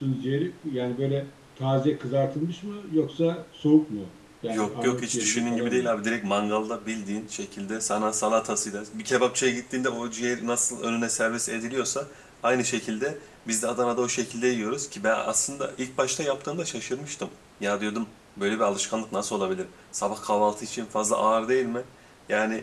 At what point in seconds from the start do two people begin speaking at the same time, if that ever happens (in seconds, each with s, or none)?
4.5 s